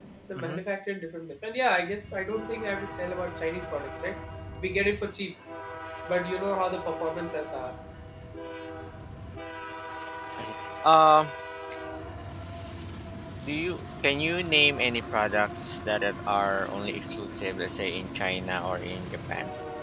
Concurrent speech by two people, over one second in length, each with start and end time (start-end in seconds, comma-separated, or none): none